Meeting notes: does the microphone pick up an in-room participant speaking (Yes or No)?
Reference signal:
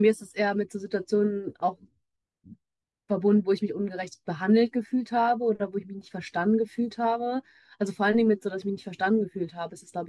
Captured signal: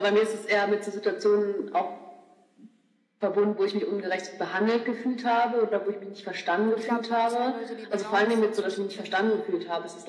Yes